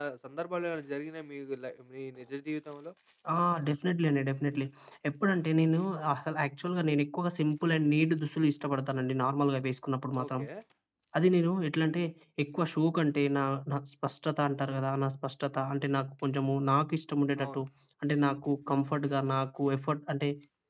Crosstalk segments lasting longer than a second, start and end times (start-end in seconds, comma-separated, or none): none